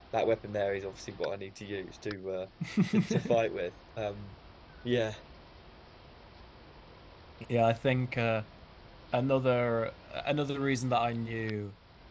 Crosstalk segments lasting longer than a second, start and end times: none

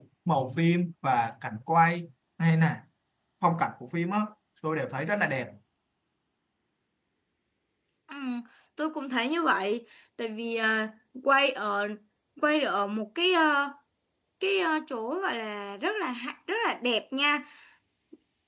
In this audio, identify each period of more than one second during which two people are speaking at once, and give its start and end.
none

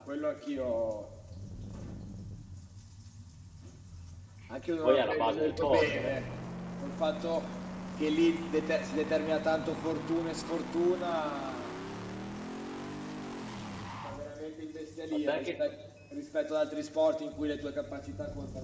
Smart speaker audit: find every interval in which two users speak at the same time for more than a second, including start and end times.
4.8-6.1

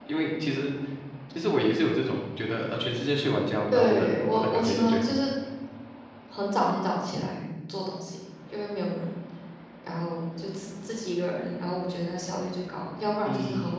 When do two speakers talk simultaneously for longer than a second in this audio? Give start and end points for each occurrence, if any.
3.7-5.2

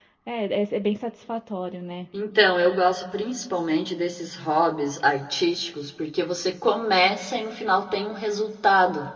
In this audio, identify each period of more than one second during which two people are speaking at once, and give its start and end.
none

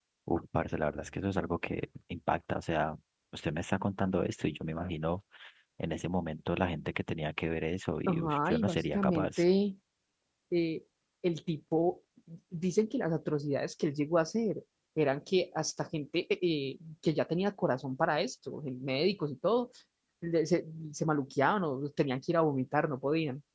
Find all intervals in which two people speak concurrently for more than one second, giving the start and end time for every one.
8.1-9.4

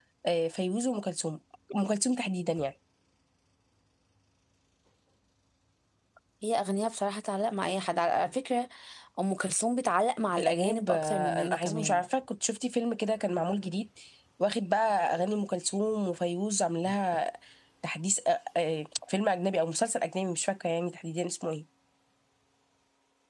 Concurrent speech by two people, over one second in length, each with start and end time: 10.4-12.0

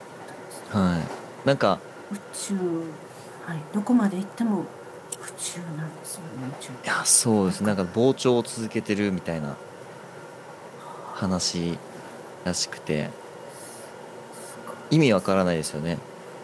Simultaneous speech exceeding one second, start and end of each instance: none

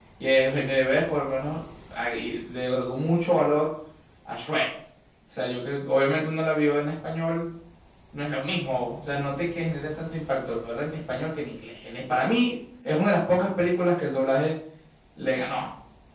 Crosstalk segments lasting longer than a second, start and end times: none

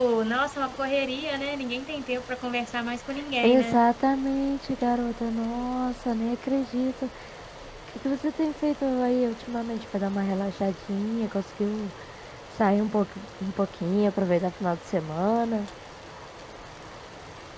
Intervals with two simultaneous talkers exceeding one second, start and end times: none

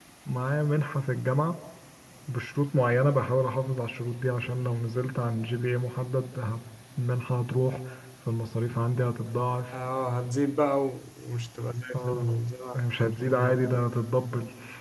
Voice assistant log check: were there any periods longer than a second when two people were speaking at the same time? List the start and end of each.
none

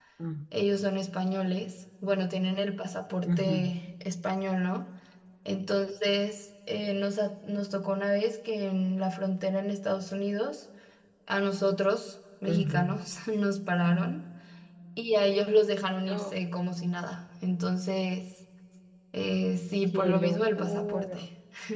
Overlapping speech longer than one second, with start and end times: 19.9-21.2

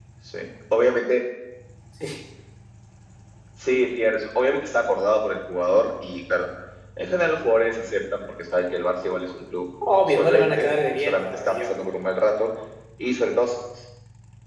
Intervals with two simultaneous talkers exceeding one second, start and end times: 10.0-11.8

